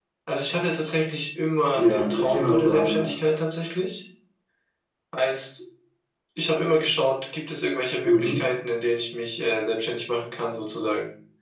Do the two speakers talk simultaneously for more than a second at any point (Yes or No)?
Yes